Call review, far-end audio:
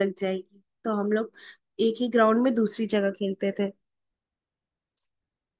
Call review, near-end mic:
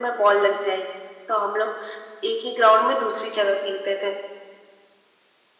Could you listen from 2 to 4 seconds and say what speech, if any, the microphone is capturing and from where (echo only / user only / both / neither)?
echo only